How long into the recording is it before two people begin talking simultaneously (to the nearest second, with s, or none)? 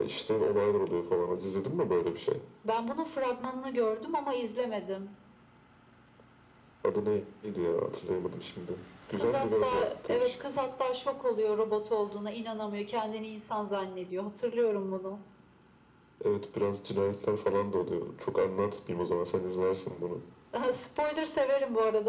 9 s